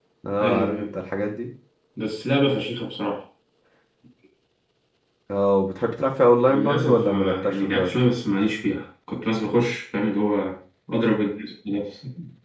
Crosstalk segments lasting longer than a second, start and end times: 6.5-8.0

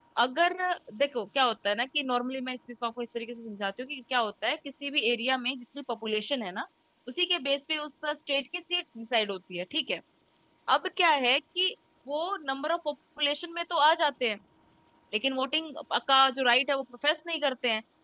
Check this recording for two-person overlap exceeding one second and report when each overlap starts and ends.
none

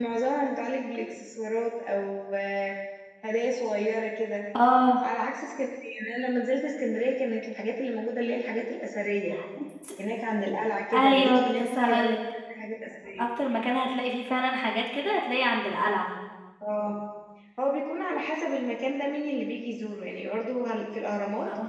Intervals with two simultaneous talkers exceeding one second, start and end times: 10.9-12.2

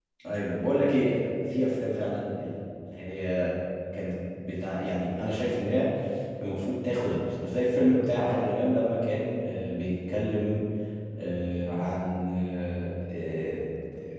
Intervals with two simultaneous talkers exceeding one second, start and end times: none

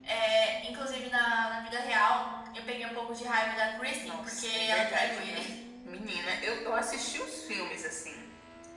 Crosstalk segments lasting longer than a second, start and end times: 4.0-5.5

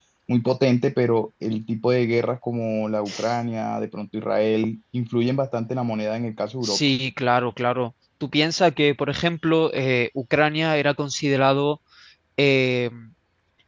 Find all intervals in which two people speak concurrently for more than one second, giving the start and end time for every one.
none

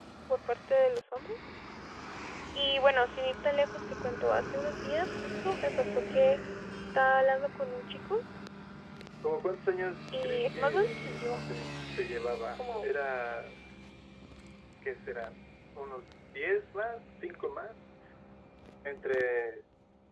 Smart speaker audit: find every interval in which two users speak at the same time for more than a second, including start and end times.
10.1-11.4

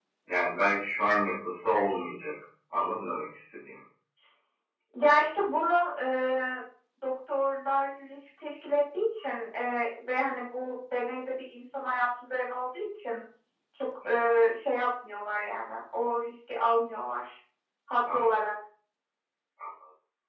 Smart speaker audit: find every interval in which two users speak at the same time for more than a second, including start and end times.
none

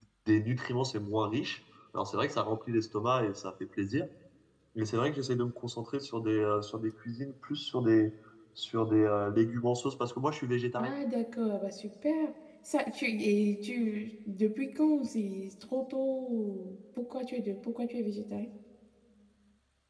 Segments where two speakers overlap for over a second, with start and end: none

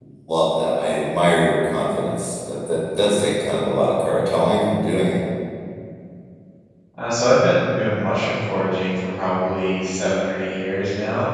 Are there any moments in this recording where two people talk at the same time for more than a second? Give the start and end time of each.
none

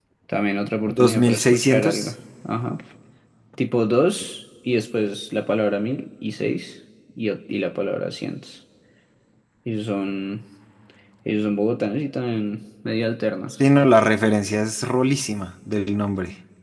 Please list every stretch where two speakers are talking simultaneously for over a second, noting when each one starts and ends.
0.9-2.1

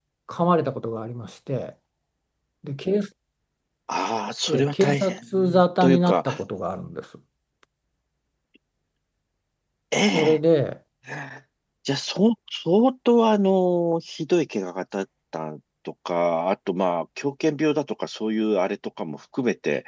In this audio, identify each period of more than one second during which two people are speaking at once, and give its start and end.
4.5-6.2

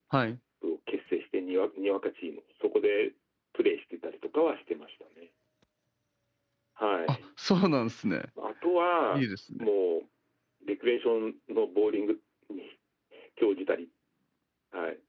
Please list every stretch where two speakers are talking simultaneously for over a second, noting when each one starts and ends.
none

